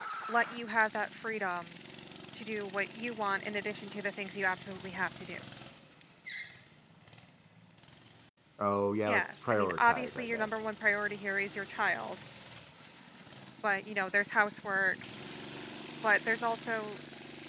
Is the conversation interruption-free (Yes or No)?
No